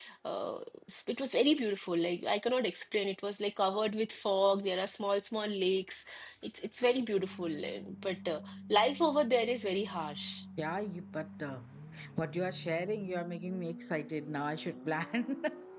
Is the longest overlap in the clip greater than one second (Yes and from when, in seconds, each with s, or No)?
No